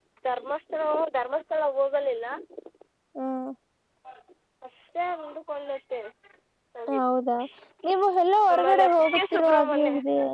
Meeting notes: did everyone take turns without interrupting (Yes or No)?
No